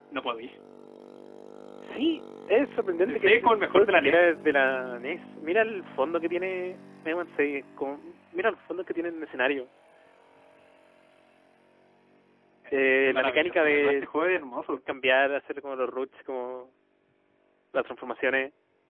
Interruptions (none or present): present